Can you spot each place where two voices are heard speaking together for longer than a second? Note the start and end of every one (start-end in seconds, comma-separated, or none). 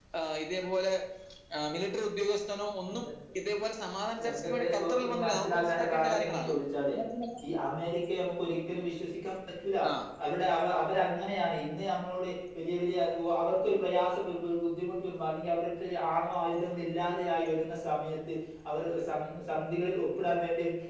4.3-6.5